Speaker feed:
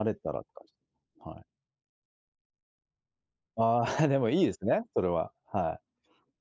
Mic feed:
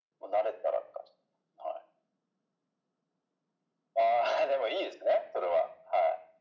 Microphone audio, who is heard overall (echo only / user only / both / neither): echo only